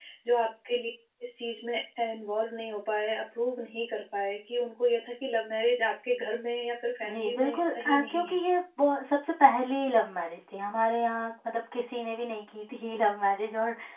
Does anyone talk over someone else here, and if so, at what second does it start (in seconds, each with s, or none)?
7.0 s